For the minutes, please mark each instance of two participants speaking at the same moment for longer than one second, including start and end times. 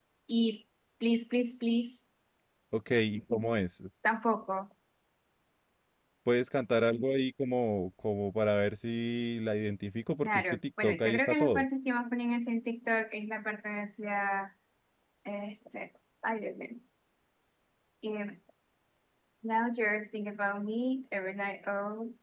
10.2-11.6

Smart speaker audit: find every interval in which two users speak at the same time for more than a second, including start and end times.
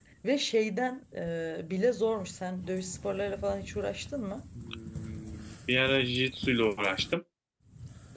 none

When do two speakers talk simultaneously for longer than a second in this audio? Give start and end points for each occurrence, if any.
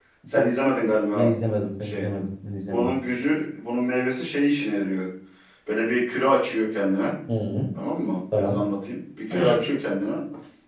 none

